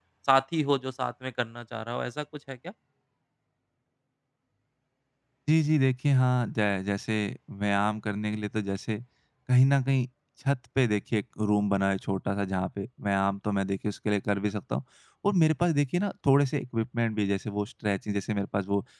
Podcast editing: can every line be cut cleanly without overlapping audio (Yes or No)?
Yes